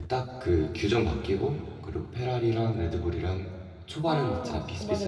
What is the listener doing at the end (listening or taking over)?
taking over